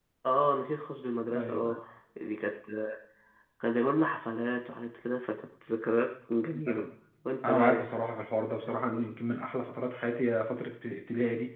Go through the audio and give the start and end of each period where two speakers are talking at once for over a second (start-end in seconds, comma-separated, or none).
none